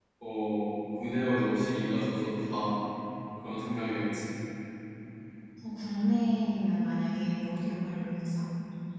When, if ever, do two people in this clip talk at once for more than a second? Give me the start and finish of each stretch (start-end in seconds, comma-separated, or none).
none